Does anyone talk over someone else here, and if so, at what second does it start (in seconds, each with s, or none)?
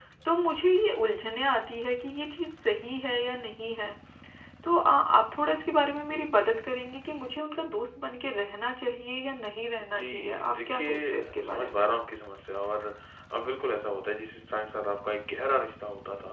9.8 s